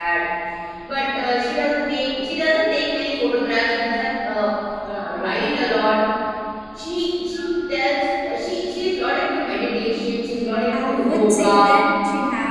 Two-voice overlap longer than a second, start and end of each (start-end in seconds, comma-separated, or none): 10.3-11.8